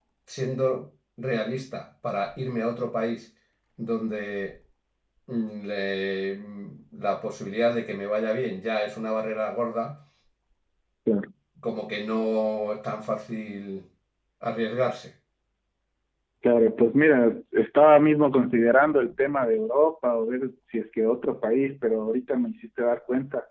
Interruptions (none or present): none